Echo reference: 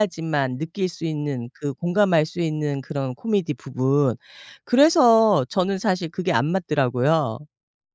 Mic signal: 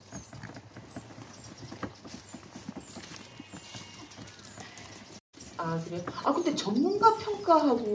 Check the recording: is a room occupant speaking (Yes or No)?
Yes